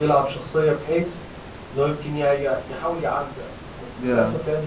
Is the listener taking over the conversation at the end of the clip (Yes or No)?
No